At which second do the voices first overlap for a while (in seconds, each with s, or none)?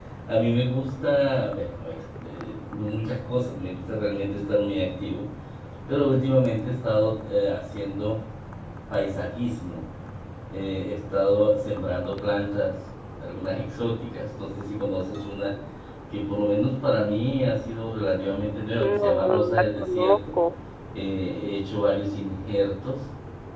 18.8 s